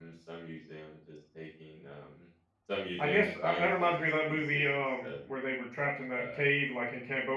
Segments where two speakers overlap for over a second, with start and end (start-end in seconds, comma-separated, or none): 3.0-5.0